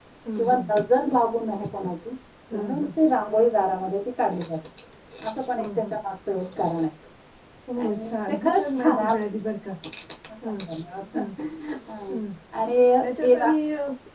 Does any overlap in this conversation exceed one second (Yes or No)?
Yes